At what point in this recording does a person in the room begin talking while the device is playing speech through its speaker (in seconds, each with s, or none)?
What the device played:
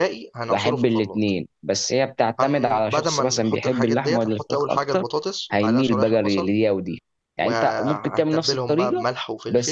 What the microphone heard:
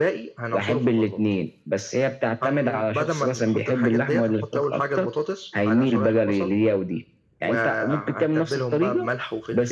none